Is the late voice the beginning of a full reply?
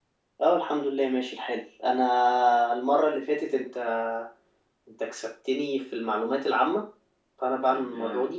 No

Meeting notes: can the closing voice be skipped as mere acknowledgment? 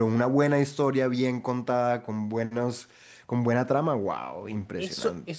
No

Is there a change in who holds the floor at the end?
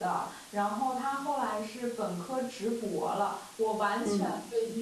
No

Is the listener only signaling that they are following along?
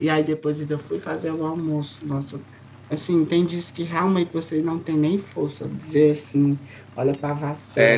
No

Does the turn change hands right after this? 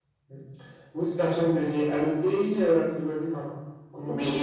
Yes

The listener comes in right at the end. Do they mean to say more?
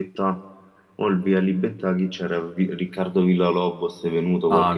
Yes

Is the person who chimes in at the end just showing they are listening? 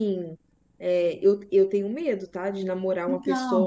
Yes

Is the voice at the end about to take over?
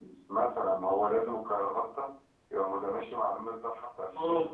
Yes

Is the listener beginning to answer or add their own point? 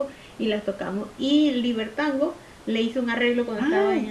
No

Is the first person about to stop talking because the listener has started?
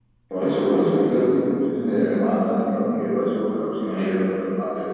No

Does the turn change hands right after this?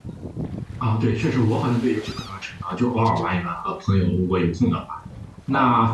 No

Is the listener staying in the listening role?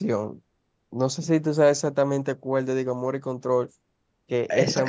No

